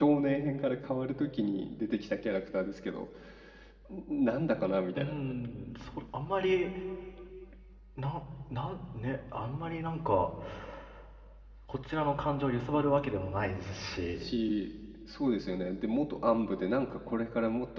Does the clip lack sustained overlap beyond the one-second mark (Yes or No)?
Yes